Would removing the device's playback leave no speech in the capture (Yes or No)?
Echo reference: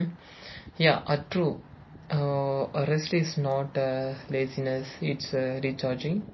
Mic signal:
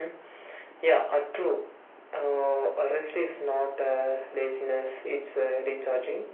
Yes